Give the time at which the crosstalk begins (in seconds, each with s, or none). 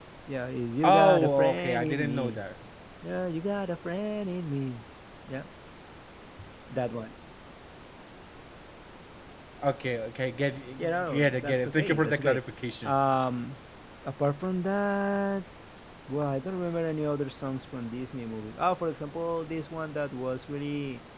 0.8 s